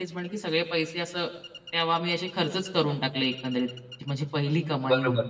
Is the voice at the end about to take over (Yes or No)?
Yes